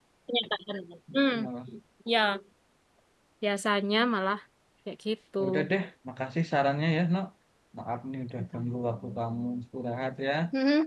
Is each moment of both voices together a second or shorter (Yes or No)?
Yes